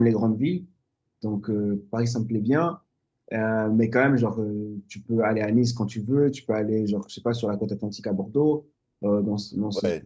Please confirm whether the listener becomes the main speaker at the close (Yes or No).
Yes